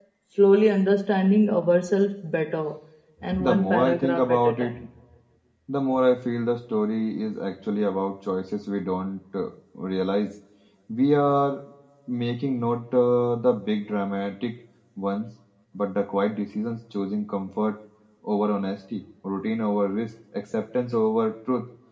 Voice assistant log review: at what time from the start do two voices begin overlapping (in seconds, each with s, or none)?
3.4 s